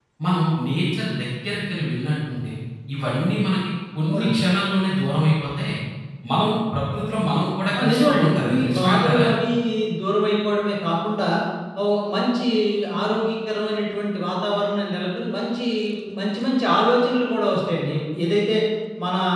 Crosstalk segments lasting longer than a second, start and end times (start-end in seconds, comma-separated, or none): 7.8-9.2